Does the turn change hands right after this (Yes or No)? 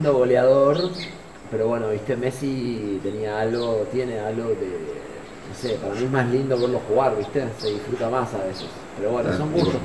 Yes